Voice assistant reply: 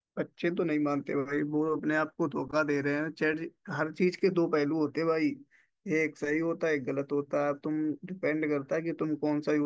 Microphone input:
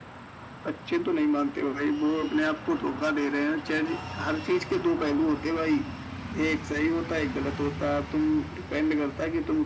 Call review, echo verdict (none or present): present